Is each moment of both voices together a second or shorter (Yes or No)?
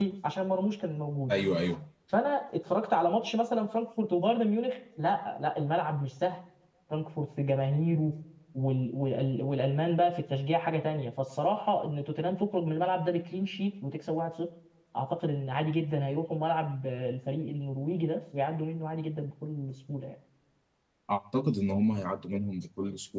Yes